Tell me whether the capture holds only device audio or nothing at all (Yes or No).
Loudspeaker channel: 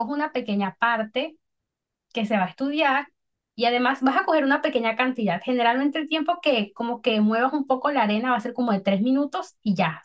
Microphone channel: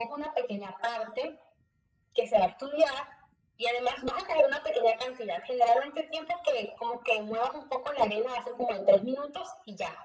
Yes